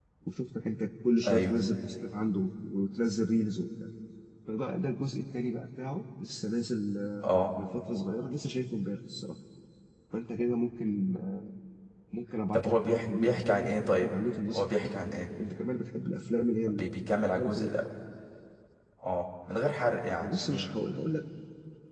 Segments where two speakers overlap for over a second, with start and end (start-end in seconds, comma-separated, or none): 12.5-14.1